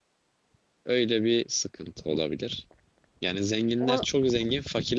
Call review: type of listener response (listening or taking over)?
listening